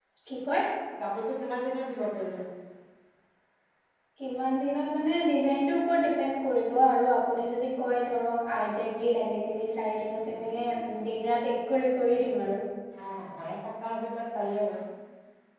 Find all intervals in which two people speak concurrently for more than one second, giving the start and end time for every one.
none

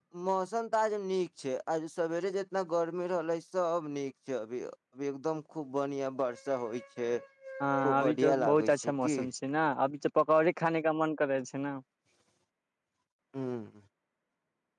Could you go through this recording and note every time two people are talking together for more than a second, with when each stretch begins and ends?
7.8-9.2

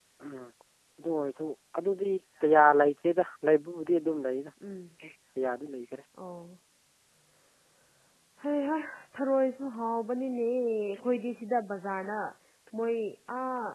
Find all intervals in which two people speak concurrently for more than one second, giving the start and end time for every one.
none

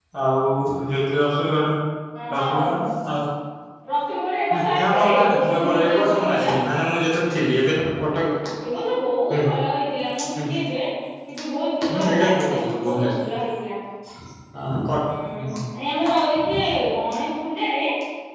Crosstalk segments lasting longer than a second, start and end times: 4.6-6.5, 11.9-13.3

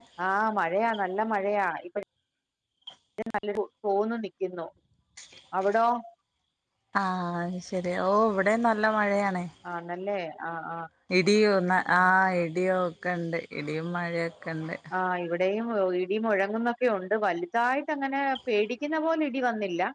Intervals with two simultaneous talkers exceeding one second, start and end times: none

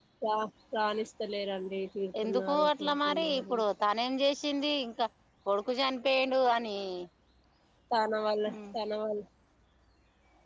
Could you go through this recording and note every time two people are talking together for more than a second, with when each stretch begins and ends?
2.2-3.6

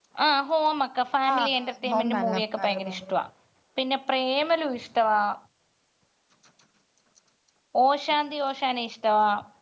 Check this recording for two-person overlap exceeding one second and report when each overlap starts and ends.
1.3-2.9

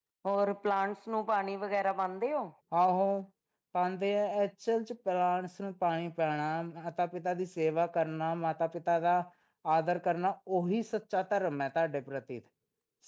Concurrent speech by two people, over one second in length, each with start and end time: none

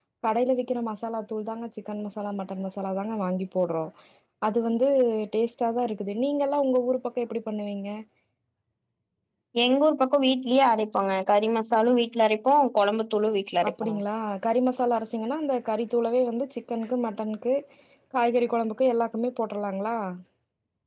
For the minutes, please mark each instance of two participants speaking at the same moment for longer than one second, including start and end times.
none

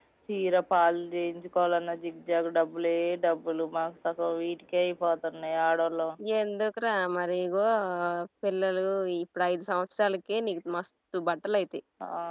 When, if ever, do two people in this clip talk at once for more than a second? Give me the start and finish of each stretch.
none

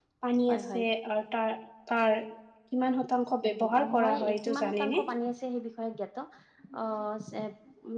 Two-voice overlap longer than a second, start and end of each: 3.7-5.0

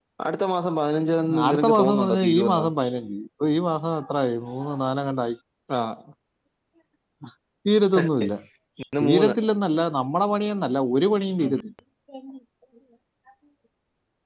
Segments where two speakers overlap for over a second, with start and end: 1.4-2.7

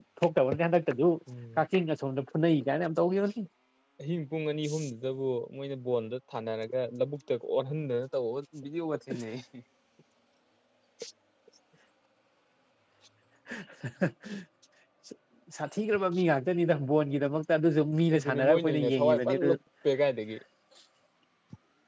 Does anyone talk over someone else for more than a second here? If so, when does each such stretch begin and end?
18.1-19.5

